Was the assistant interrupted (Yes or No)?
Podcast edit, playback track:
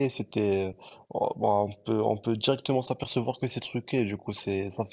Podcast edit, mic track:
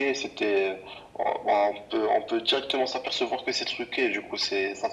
No